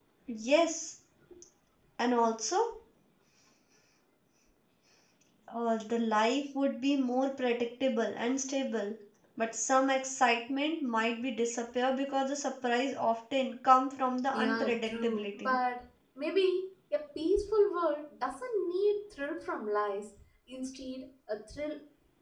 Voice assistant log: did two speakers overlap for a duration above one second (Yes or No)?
Yes